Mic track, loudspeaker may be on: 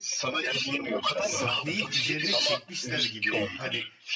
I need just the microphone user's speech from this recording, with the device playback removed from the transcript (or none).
Sahneyi üzerine çekmişler gibi. Hani